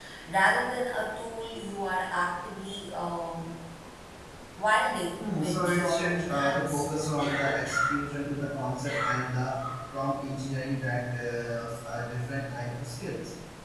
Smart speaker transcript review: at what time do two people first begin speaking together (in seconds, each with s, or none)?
5.2 s